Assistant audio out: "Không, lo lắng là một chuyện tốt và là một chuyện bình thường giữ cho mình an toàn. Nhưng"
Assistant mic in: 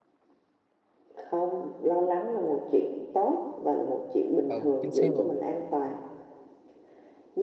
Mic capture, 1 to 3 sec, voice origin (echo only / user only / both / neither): echo only